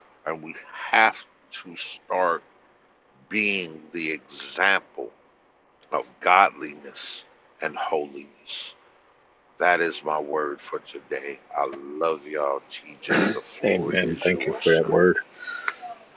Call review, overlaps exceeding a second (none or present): present